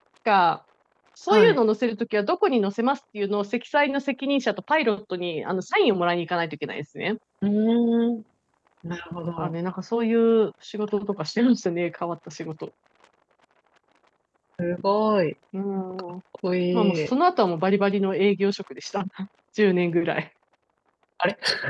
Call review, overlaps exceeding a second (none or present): none